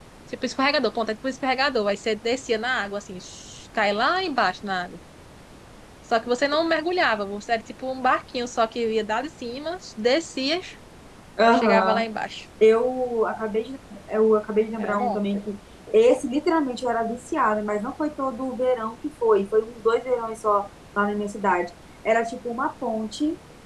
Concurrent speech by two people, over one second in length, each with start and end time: none

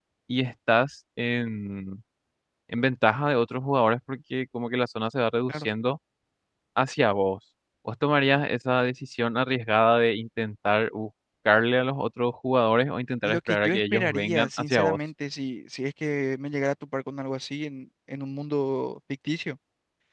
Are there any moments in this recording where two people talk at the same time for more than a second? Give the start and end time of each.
13.2-15.0

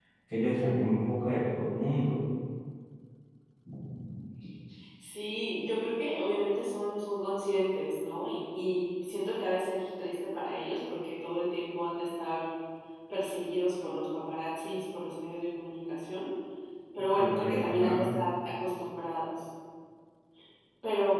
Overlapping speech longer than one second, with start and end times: 17.0-18.2

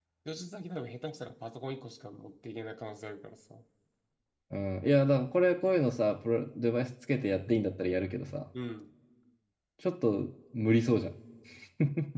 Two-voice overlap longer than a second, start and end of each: none

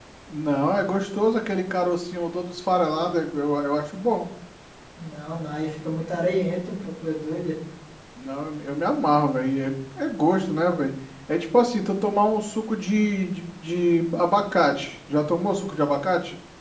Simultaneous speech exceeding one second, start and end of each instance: none

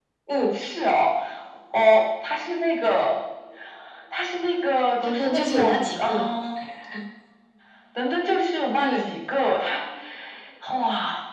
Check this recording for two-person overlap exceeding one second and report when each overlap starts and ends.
5.0-6.3

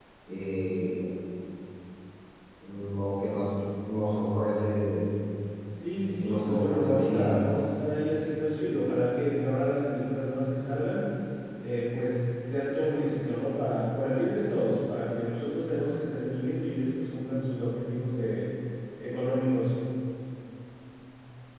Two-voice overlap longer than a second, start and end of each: 6.1-7.3

